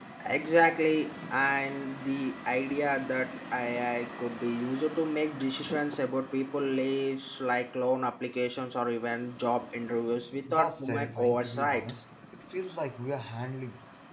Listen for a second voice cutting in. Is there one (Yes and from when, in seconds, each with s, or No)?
Yes, from 10.5 s